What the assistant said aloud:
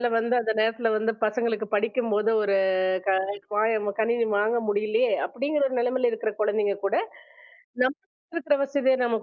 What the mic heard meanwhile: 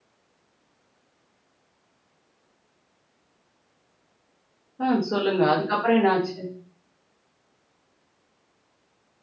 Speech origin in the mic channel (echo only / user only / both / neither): user only